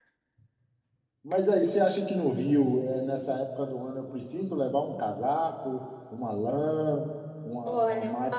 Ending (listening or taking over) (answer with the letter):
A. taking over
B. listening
A